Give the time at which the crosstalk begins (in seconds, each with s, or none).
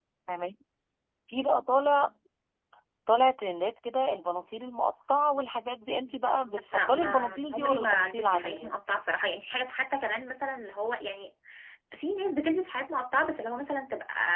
6.7 s